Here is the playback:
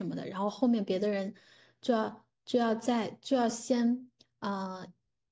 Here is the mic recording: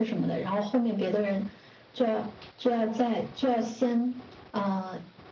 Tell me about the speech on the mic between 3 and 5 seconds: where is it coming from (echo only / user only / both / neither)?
echo only